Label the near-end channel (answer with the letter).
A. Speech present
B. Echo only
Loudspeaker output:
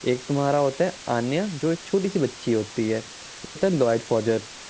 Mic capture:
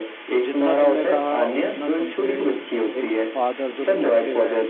A